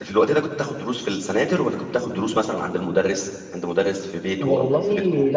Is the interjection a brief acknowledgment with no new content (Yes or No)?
No